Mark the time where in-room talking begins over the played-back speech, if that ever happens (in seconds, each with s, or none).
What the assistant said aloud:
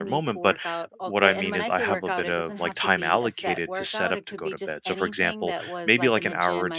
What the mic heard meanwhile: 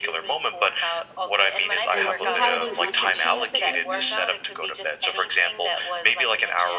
1.9 s